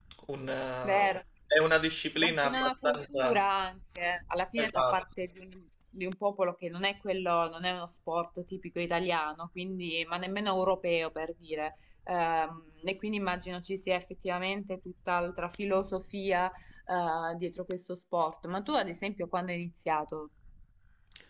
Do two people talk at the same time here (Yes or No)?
Yes